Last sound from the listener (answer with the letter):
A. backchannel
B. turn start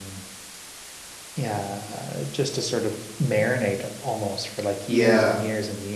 A